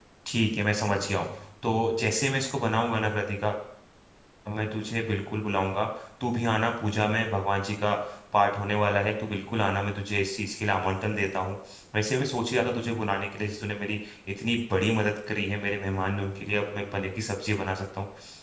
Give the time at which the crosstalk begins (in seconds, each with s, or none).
none